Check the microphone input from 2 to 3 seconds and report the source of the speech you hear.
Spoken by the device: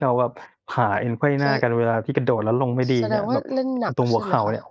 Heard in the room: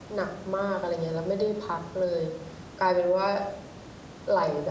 user only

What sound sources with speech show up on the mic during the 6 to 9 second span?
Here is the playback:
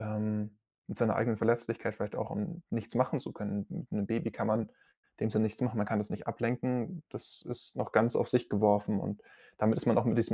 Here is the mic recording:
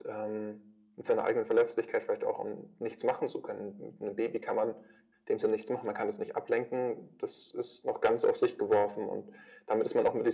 echo only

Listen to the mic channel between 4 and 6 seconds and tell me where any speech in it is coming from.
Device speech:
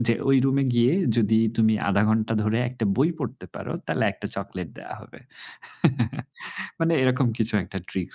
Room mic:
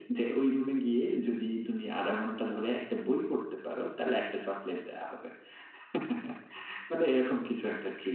echo only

